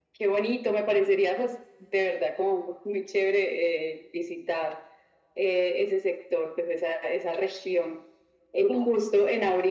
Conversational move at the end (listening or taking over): listening